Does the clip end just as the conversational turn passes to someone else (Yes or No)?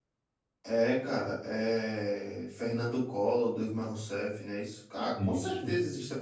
No